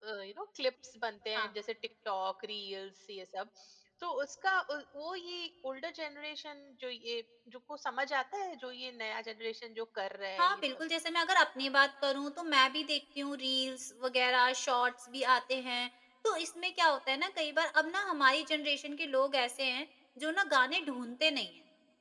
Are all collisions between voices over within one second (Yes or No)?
Yes